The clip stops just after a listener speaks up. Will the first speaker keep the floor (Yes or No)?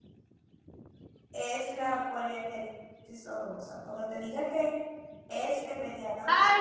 No